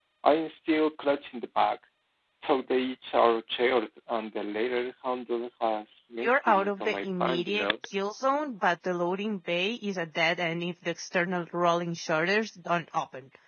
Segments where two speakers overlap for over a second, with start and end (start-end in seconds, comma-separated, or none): 6.2-7.7